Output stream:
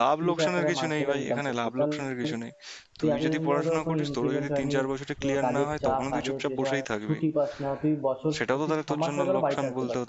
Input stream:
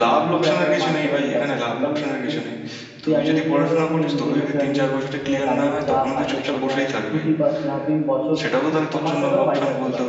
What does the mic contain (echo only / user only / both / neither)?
both